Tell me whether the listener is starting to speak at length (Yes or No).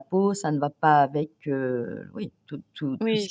Yes